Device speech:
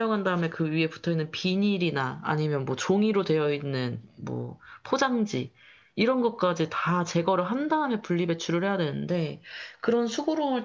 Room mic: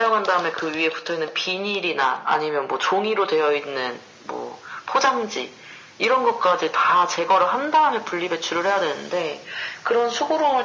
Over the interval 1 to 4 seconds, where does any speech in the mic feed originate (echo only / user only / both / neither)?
echo only